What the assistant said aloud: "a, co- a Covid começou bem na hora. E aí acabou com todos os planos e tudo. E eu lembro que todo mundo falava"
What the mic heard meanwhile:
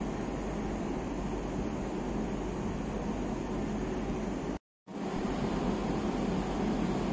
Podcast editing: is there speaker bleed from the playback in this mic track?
No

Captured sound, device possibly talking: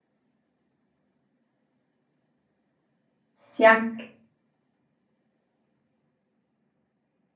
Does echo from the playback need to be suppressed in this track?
No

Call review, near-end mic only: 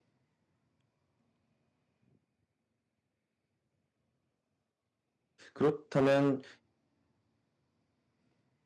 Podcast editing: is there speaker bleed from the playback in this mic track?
No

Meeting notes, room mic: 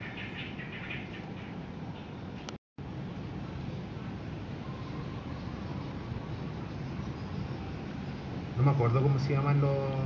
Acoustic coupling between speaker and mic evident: No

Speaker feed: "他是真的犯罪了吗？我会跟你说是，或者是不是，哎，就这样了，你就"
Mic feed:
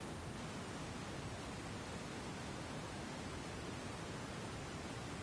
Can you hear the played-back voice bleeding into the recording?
No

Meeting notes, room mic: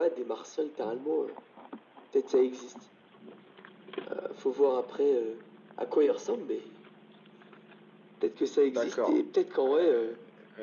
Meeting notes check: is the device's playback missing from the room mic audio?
No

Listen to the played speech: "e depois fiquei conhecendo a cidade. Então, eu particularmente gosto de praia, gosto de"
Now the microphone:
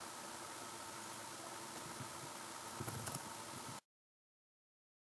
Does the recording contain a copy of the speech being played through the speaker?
No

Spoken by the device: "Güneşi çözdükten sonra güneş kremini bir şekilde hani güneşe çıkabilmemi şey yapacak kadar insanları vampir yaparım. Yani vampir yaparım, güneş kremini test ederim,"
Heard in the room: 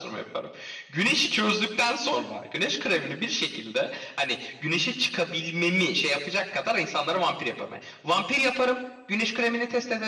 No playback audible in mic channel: No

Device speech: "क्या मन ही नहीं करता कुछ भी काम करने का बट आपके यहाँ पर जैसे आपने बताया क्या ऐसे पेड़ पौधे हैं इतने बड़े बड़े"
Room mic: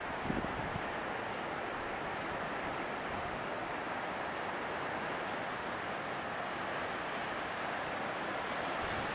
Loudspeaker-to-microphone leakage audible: No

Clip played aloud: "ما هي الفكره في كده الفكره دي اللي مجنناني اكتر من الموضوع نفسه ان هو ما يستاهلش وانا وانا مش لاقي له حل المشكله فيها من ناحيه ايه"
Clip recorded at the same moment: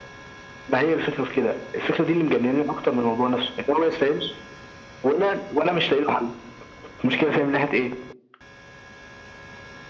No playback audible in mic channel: No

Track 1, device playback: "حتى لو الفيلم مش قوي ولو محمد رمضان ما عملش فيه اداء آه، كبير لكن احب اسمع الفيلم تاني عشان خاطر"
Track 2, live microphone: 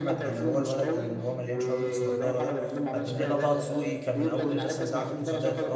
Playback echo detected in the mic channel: Yes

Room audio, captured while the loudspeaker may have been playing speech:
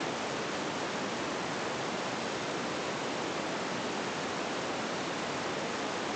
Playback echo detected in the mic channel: No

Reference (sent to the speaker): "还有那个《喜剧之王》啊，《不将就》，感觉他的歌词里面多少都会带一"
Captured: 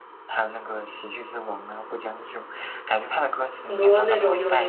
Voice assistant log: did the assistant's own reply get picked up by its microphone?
Yes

